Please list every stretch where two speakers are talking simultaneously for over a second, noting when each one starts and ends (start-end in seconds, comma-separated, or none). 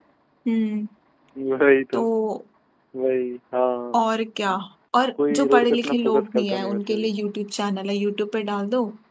5.3-7.1